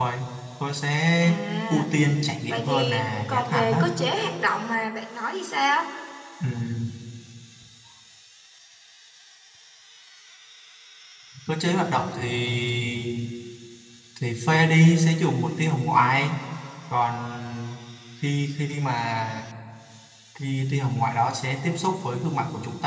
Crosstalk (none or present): present